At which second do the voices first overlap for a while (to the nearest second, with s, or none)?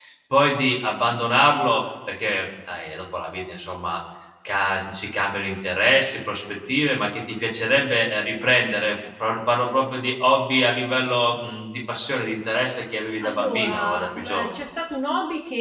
13 s